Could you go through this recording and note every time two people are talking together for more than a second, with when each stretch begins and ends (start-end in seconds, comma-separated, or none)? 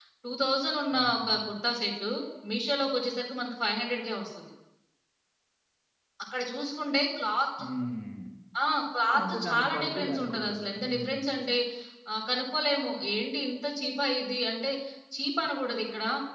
9.2-11.2